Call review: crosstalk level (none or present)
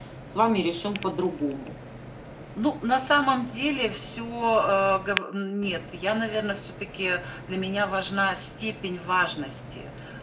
none